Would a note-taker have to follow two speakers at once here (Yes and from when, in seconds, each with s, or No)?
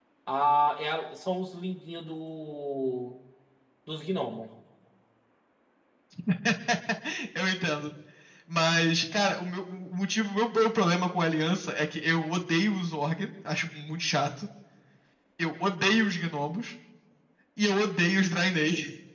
No